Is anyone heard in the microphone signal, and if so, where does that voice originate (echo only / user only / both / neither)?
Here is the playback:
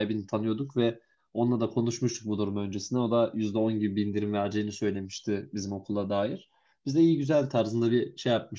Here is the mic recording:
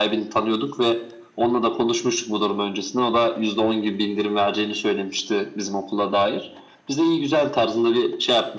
echo only